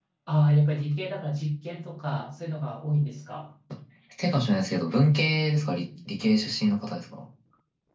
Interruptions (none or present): none